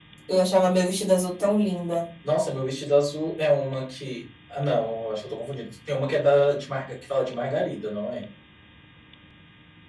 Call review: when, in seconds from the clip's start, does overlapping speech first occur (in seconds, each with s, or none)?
none